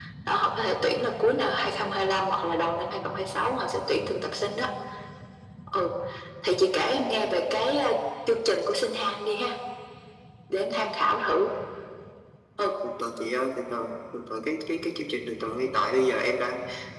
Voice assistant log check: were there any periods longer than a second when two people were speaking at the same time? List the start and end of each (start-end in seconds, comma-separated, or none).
none